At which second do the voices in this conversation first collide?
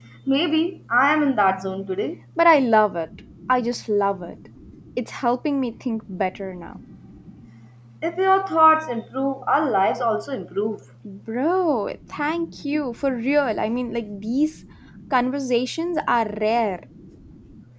none

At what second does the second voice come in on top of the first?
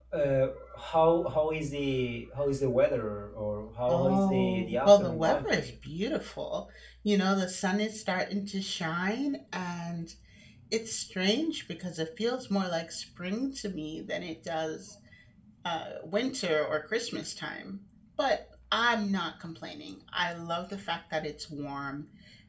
3.9 s

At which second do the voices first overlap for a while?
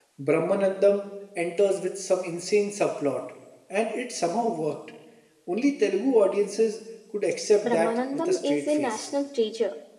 7.6 s

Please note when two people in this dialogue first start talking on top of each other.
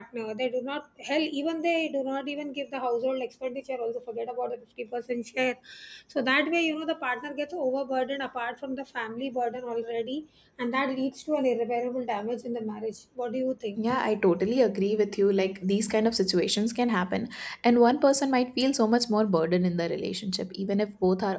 none

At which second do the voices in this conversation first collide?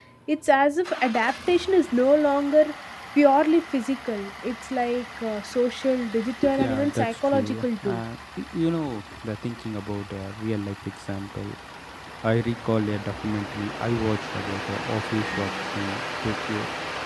6.4 s

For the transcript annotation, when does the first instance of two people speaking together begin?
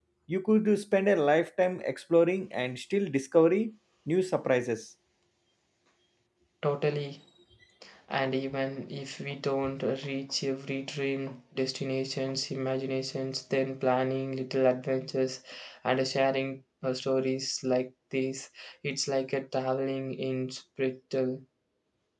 none

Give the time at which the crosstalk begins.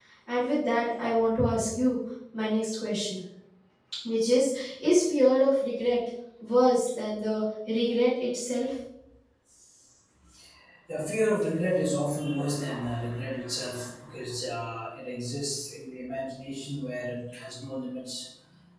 none

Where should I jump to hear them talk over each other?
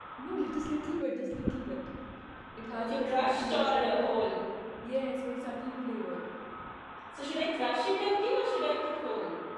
2.7 s

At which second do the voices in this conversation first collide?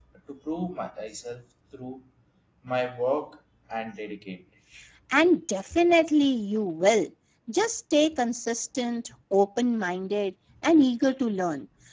none

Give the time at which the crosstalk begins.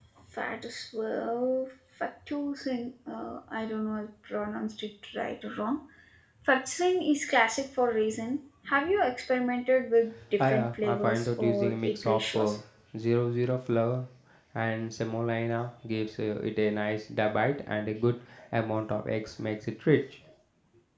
10.4 s

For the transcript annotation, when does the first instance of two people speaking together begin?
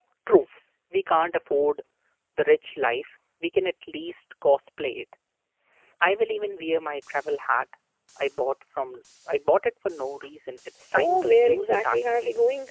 10.9 s

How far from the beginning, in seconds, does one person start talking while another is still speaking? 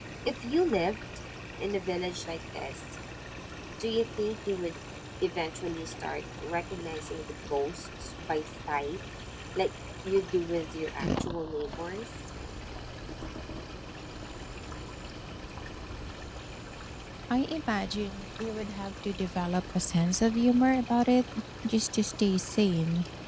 none

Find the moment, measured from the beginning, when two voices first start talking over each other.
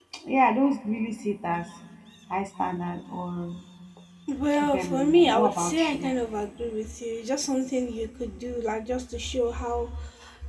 4.7 s

